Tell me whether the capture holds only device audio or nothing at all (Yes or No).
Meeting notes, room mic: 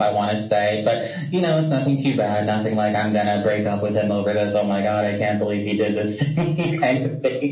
Yes